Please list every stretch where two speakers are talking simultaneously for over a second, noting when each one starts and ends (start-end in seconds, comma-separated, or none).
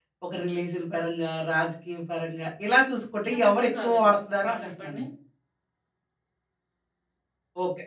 3.3-5.0